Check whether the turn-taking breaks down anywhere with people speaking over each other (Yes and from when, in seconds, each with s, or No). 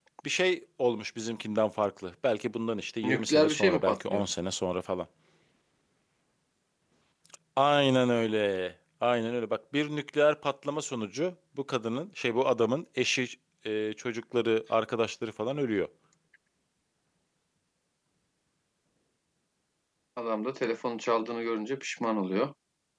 Yes, from 3.0 s